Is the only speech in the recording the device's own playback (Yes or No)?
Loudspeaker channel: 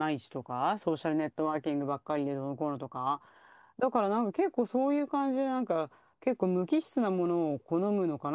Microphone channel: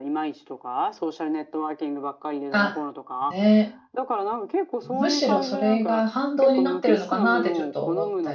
No